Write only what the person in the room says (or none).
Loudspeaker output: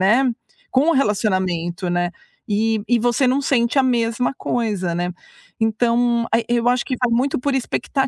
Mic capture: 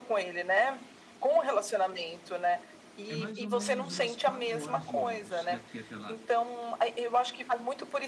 É mais ou menos umas 4h de ônibus daqui até lá.